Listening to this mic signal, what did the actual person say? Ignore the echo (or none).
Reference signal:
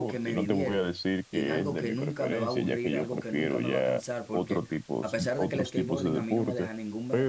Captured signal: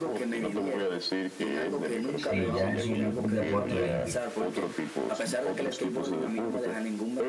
sí ya es un, un deporte olímpico.